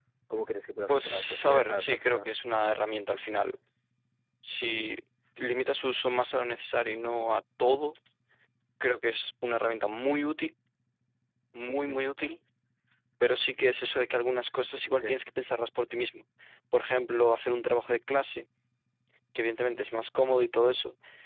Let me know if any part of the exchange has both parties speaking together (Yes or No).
Yes